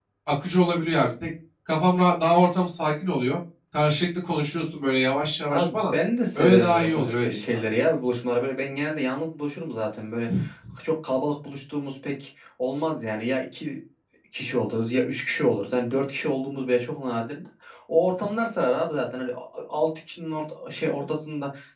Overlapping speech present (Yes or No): Yes